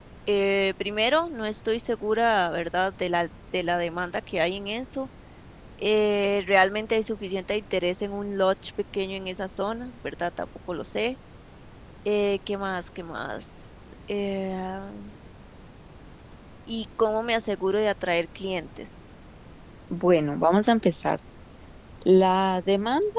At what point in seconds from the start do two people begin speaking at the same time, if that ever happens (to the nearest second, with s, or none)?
none